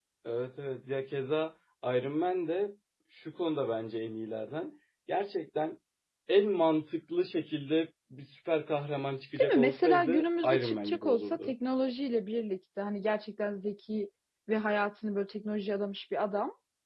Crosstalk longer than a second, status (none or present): present